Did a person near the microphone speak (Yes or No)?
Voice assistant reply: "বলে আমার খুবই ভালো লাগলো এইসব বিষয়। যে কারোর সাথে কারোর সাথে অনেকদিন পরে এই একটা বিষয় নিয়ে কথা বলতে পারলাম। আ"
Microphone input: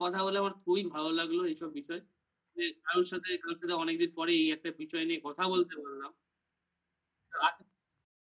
No